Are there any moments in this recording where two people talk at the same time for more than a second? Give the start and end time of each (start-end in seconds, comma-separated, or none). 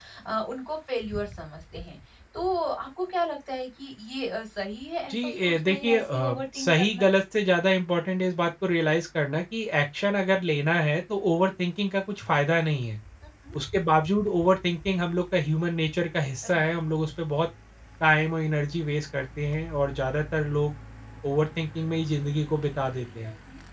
5.1-7.1